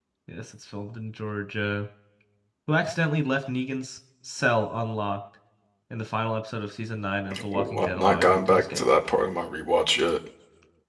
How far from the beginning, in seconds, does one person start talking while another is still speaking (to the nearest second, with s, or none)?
7 s